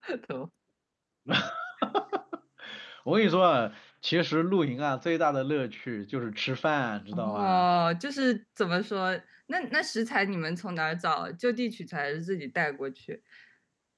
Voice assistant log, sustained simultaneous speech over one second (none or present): none